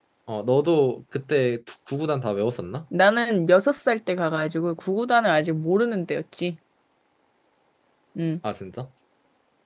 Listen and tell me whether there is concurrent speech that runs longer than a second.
No

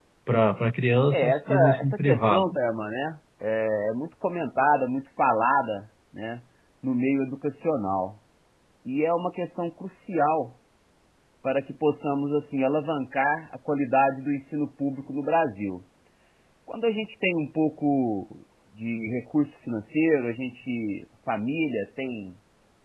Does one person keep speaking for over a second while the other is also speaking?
Yes, from 1.1 s

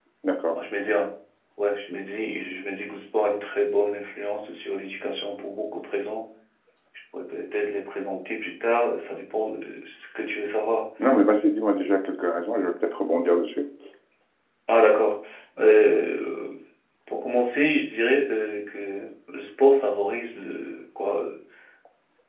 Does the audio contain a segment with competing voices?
No

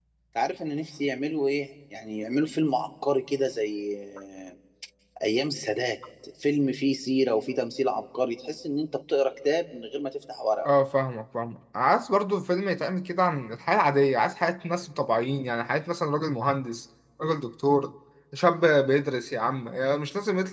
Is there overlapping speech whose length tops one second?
No

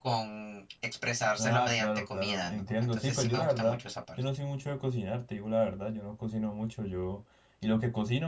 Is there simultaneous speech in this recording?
Yes, from 1.4 s

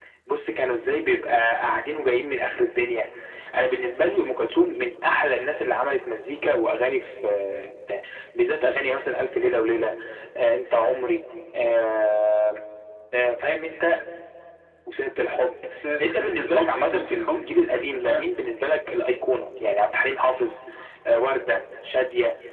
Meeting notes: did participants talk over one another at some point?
Yes, from 16.0 s

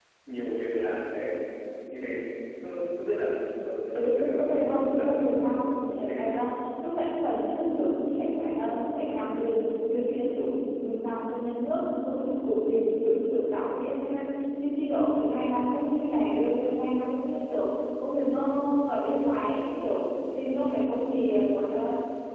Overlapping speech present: Yes, from 3.9 s

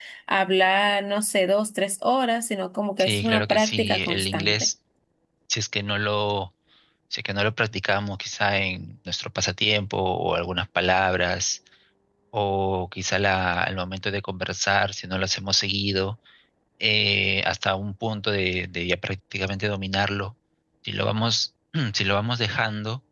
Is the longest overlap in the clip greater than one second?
Yes, from 3.0 s

